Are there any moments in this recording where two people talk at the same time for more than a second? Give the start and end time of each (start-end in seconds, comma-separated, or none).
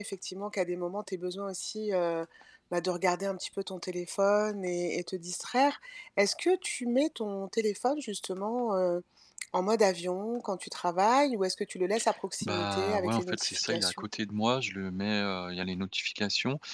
12.4-14.1